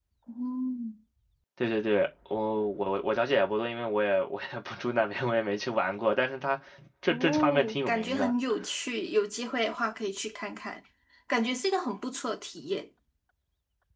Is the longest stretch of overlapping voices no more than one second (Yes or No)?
No